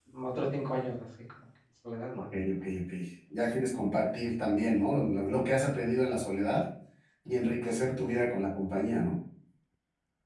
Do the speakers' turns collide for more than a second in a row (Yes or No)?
No